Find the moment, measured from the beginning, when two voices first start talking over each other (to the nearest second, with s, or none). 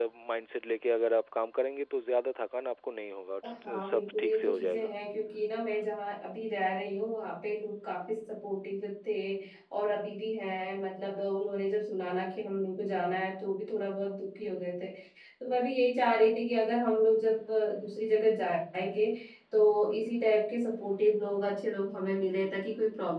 3 s